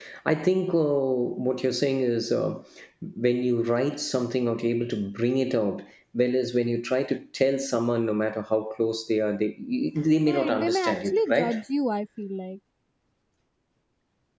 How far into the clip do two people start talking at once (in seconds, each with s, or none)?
10.2 s